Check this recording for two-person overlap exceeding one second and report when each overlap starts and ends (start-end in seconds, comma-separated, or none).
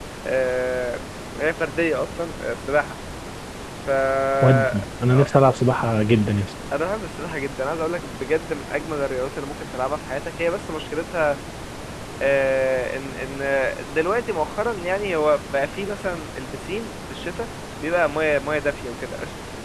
none